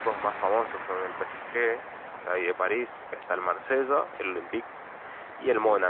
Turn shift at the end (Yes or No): No